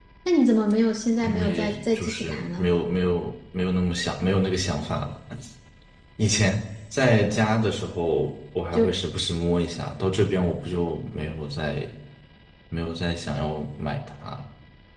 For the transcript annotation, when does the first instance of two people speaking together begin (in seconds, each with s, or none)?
1.2 s